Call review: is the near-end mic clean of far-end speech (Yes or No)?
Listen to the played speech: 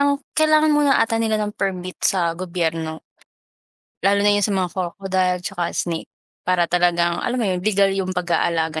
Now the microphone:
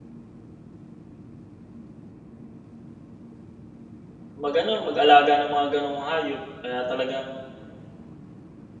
Yes